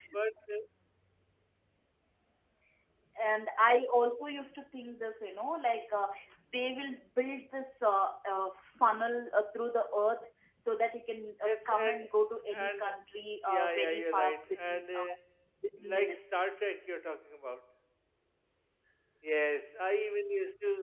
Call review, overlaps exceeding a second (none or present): present